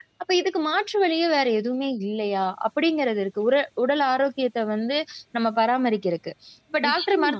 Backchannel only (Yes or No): Yes